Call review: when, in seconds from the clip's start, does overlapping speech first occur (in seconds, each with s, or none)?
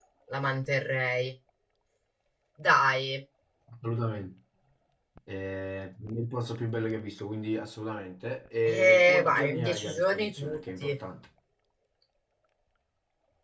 8.6 s